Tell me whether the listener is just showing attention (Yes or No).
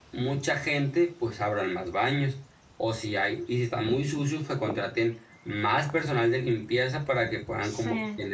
Yes